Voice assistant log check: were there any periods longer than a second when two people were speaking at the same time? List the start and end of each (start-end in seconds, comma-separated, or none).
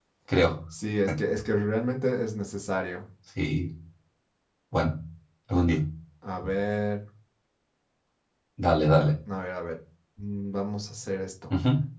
none